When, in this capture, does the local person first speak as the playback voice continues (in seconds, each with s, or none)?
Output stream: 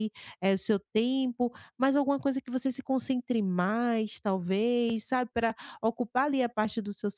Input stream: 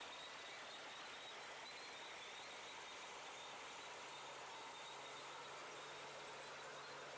none